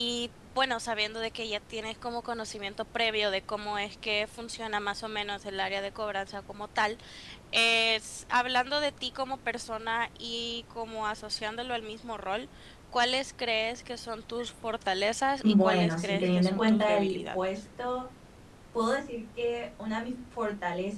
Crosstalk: present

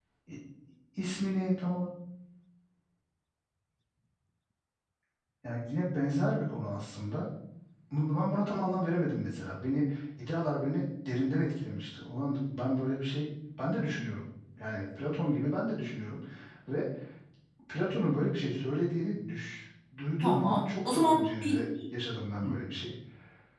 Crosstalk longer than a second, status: present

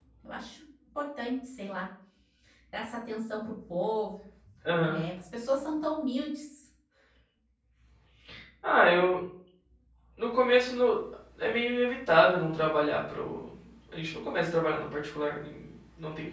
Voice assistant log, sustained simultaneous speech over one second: none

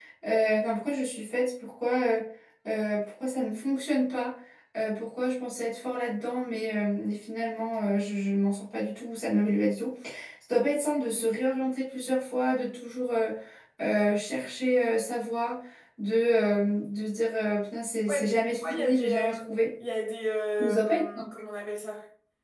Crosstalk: present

